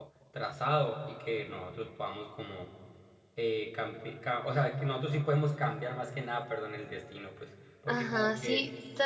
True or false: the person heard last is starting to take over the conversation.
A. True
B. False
A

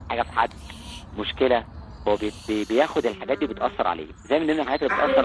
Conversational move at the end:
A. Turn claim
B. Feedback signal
B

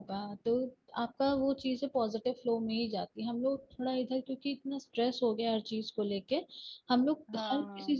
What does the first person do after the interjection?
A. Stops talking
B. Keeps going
B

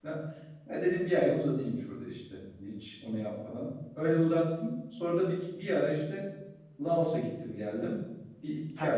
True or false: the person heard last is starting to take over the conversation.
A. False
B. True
B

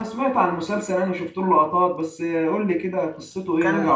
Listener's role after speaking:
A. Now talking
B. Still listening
A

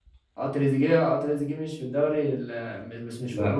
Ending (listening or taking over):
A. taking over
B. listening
B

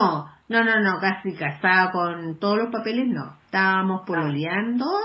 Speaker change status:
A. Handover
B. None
B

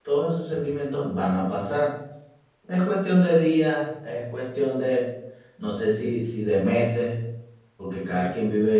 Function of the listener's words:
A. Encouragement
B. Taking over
A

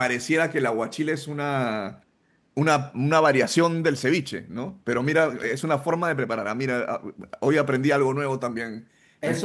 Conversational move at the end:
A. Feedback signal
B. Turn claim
B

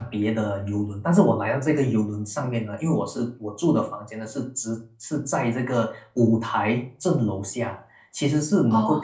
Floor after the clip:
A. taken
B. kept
B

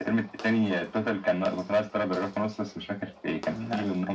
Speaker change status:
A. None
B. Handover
A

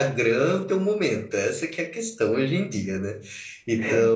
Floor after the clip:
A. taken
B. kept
B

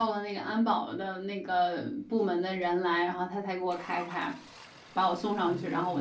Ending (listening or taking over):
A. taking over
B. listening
B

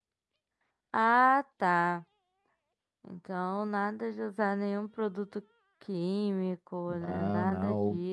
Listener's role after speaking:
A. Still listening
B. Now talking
B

